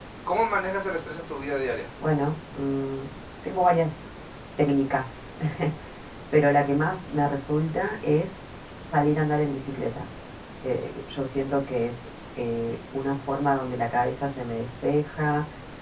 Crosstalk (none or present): none